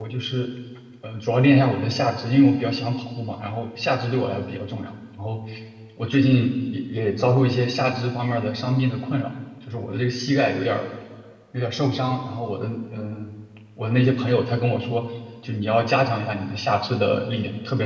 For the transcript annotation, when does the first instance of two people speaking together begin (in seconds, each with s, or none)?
none